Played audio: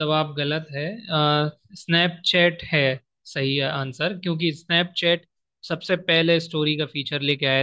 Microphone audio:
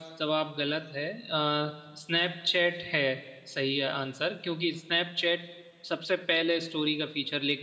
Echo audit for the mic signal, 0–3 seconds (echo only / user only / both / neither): echo only